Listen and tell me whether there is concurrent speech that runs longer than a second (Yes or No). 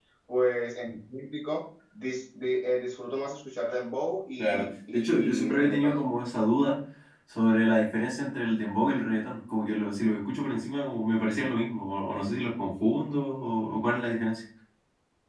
Yes